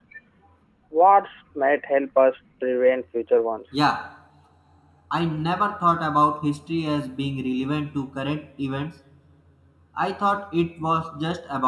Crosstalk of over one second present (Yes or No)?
No